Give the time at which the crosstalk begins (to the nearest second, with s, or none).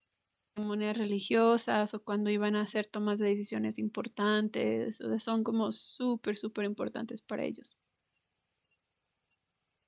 none